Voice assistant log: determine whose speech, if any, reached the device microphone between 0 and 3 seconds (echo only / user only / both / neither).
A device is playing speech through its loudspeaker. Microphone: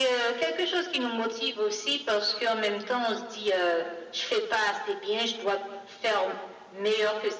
echo only